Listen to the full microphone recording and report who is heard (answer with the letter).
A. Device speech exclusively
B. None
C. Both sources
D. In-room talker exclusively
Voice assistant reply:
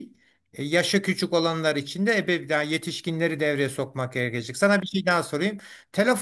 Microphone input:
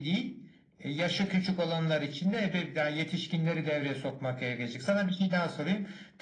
A